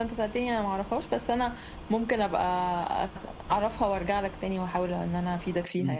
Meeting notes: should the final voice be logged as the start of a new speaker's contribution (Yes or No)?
Yes